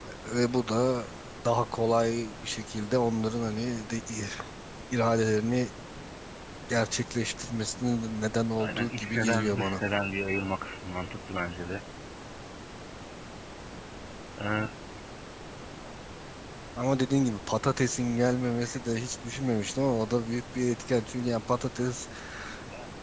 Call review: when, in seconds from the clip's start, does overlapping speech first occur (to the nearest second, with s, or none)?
9 s